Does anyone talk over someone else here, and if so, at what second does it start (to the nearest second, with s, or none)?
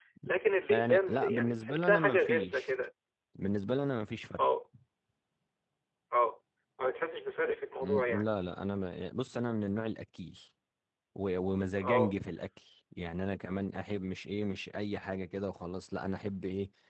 1 s